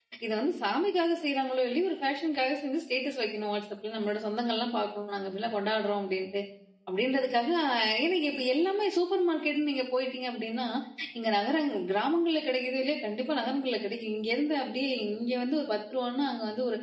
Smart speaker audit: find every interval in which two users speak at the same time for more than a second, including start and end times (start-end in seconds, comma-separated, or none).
none